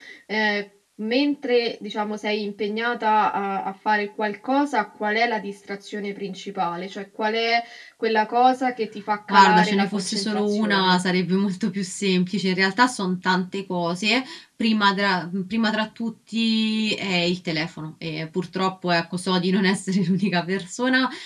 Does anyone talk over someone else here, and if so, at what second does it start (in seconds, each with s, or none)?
9.3 s